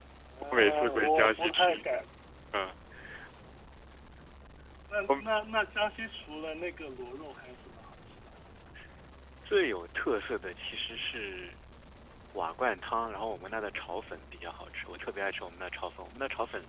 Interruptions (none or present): present